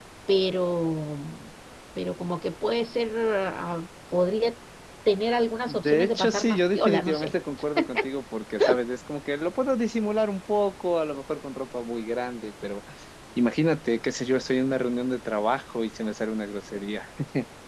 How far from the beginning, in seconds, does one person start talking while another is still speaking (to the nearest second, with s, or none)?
6 s